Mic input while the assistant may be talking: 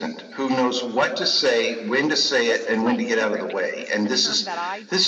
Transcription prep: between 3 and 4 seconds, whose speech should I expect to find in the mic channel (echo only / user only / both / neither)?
both